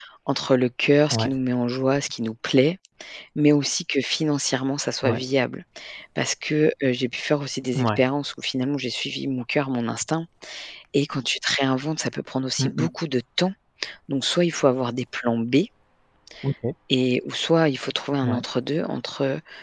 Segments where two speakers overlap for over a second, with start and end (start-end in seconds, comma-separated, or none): none